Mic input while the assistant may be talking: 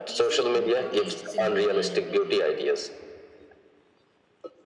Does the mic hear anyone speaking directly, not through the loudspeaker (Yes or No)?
Yes